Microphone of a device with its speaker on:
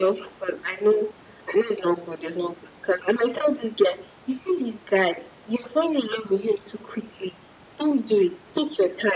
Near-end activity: none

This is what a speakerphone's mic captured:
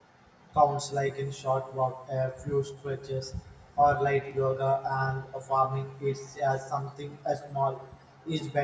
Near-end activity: present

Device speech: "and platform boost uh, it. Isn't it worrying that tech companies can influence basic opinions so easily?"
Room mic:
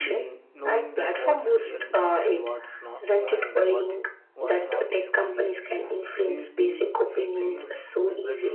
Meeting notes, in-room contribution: present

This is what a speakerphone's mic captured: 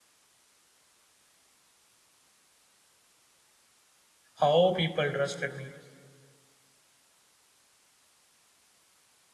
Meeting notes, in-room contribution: present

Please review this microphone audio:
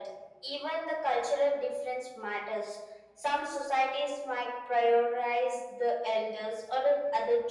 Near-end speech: none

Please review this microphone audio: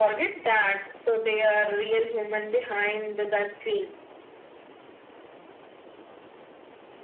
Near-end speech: none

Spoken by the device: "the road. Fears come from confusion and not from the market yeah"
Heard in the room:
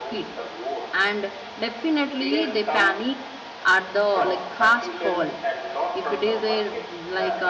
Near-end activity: present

